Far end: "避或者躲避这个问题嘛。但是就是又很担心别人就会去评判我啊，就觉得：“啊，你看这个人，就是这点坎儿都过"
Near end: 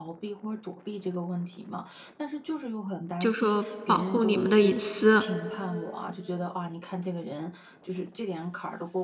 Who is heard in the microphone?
both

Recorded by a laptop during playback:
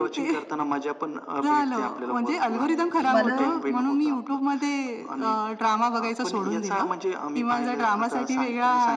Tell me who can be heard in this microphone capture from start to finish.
both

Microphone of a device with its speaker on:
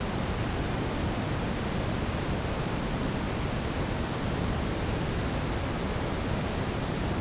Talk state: neither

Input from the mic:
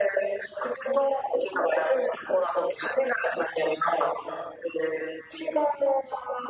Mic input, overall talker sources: echo only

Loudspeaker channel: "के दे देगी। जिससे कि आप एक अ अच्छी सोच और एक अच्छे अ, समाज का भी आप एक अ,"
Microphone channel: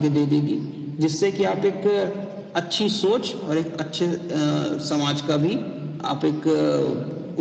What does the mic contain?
echo only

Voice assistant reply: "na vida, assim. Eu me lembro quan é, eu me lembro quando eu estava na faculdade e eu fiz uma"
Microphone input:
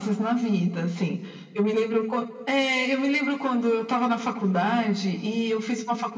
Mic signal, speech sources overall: echo only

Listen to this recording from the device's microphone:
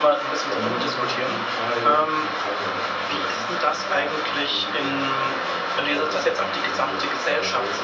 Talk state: both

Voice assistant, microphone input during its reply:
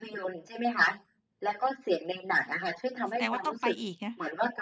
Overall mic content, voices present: both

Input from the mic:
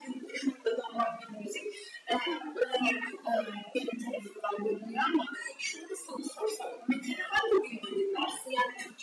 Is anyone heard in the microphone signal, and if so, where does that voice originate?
both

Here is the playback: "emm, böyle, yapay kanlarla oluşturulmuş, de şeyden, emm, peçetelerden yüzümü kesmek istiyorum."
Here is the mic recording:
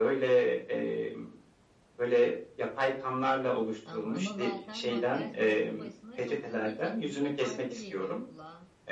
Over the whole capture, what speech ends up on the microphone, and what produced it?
both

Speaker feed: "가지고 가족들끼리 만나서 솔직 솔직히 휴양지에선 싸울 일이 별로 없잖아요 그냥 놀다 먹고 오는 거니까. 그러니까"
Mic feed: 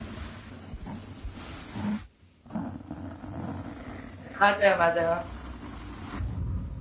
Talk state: user only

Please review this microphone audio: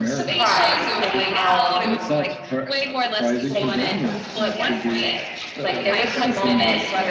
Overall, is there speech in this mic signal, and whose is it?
both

